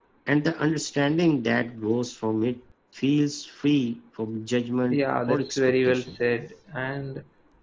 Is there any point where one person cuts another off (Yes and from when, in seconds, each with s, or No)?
Yes, from 4.9 s